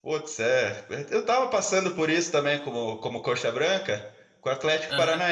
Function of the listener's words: listening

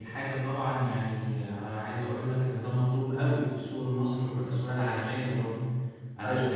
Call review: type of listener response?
listening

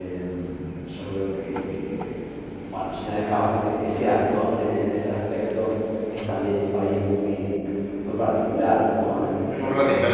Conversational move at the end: listening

